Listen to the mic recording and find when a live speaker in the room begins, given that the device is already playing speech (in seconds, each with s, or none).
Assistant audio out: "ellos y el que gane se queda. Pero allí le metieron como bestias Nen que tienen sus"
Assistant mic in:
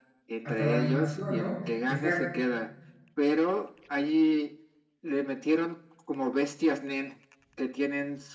0.4 s